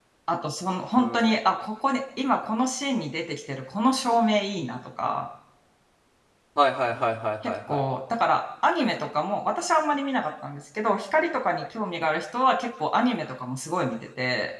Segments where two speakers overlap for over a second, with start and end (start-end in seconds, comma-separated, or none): none